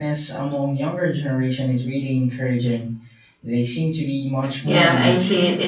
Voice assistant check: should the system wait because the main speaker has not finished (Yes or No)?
No